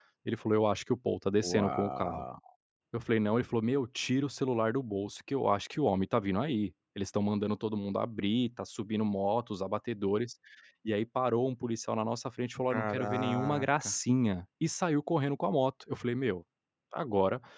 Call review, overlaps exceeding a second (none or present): present